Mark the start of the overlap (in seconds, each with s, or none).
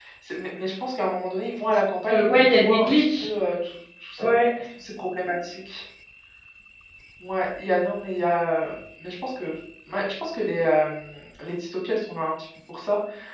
2.1 s